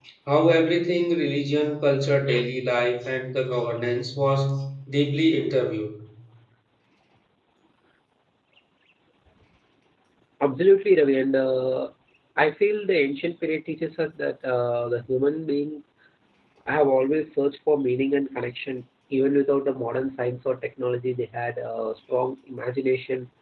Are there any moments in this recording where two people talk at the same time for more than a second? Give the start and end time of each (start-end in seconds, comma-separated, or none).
none